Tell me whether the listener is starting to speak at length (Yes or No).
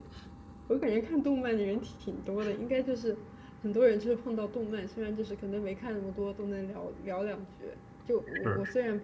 No